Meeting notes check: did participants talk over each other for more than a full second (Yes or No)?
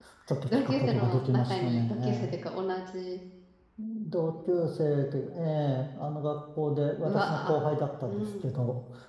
Yes